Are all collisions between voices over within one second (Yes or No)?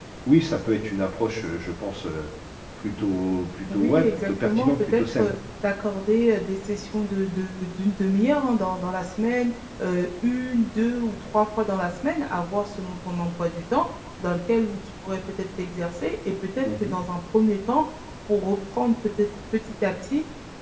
No